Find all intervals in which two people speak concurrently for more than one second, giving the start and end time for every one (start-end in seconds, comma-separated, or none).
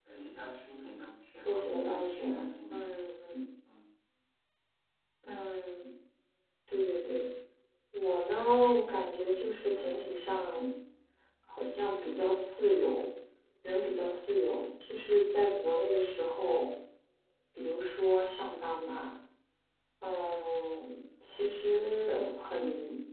1.4-3.0